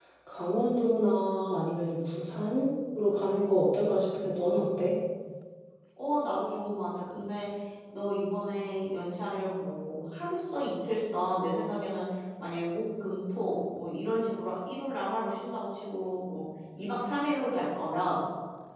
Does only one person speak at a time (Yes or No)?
Yes